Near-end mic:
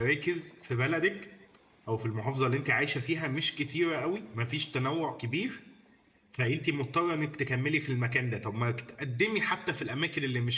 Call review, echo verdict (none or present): none